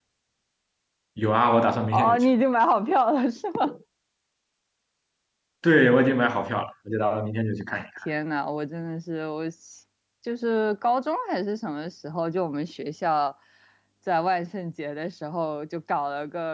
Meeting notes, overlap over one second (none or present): none